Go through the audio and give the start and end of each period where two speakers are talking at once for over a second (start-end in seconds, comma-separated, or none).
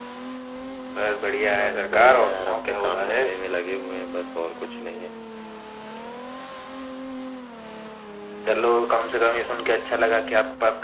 1.6-3.2